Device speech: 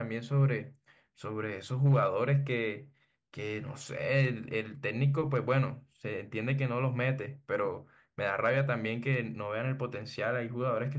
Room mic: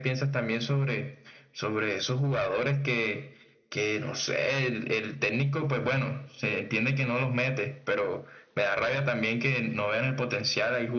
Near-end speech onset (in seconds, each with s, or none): none